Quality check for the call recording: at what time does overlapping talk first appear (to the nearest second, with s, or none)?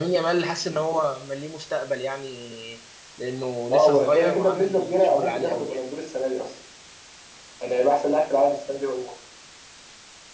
4 s